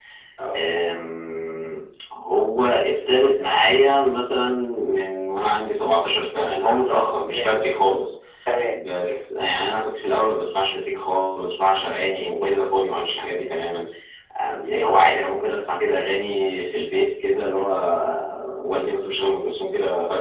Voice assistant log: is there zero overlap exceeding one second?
Yes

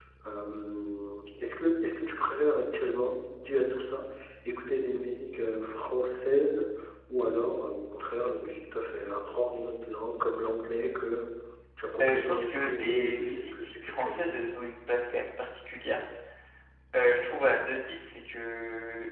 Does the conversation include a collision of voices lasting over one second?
Yes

